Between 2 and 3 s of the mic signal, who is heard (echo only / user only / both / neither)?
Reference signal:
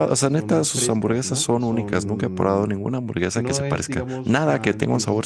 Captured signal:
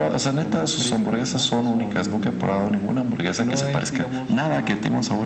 echo only